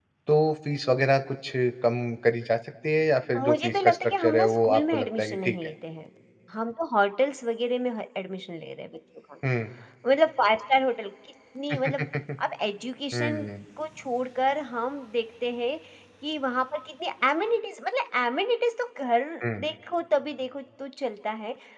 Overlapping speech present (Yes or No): Yes